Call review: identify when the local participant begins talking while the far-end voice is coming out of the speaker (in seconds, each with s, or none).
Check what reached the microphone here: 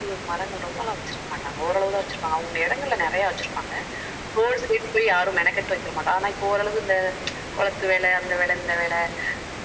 none